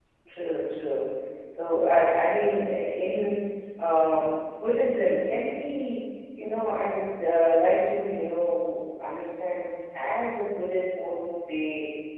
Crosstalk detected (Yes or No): No